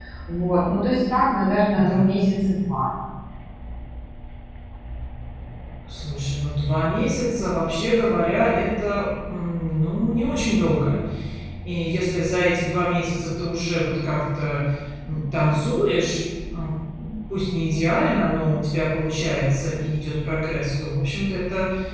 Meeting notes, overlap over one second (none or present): none